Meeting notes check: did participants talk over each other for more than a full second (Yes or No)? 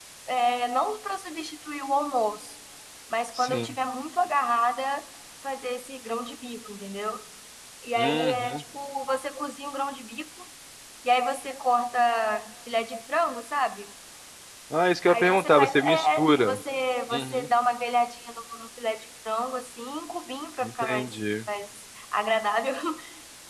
Yes